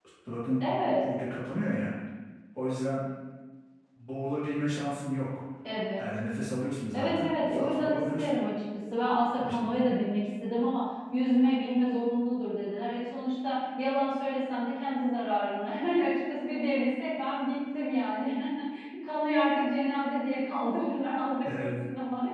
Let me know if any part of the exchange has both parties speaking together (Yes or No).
Yes